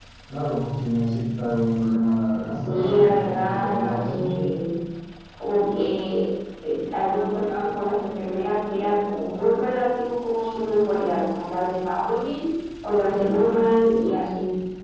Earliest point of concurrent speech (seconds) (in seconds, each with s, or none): 2.6 s